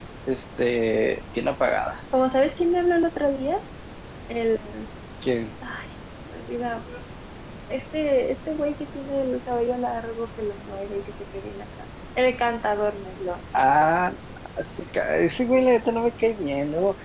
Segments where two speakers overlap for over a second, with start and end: none

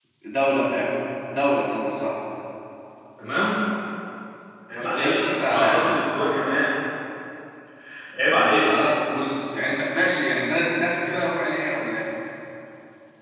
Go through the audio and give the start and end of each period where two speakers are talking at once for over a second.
4.7-6.0

